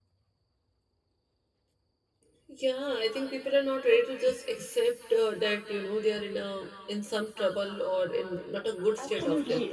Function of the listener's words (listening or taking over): taking over